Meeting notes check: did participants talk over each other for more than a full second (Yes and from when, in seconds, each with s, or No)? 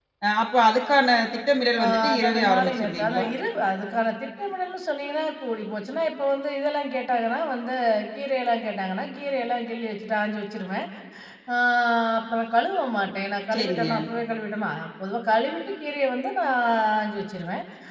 Yes, from 1.8 s